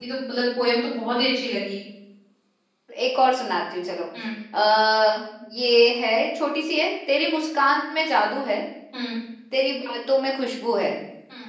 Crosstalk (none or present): none